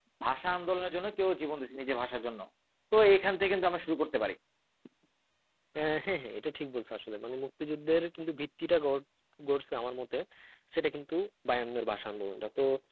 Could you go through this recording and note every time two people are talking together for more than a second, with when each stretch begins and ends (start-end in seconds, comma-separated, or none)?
none